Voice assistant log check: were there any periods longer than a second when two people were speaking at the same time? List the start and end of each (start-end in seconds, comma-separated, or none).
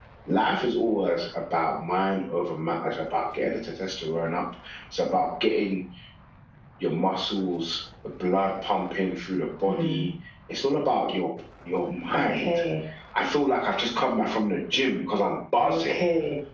none